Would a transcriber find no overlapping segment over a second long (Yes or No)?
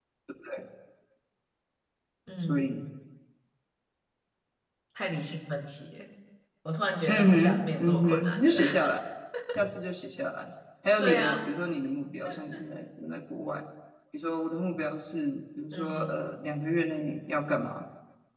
No